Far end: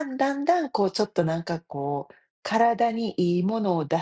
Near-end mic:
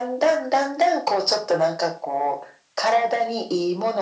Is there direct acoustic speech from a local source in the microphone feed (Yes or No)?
No